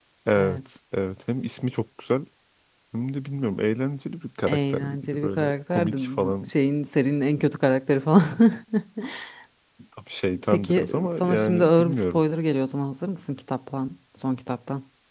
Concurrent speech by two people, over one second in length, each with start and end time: 4.5-6.5, 10.5-12.2

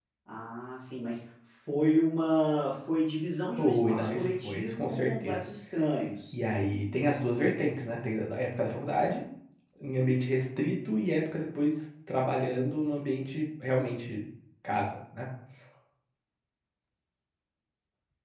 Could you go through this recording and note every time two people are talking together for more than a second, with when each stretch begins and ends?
3.6-5.5

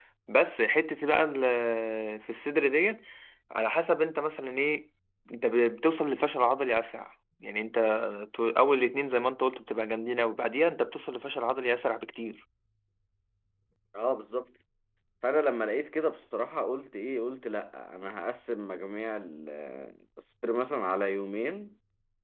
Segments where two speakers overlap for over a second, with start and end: none

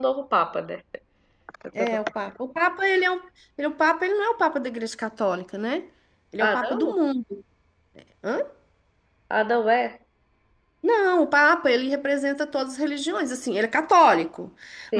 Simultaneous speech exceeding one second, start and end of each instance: none

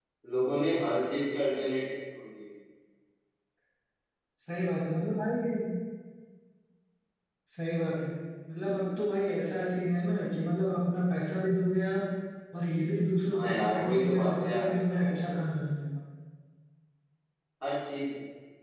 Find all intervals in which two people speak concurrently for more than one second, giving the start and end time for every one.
13.3-15.6

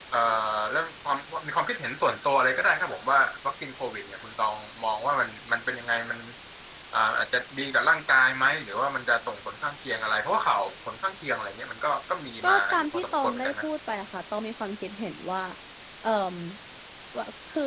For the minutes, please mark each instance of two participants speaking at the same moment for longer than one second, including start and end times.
12.4-13.7

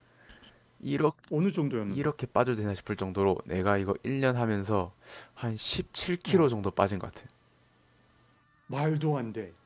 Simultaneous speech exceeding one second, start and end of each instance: none

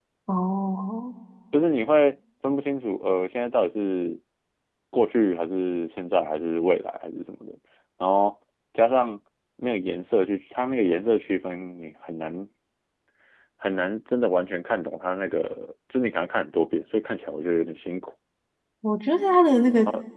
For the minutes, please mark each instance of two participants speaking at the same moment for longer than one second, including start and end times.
none

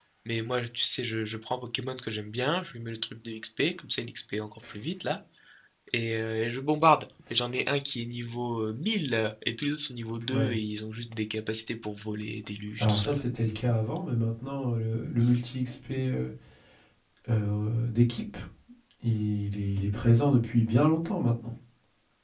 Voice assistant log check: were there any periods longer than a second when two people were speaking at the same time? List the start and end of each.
none

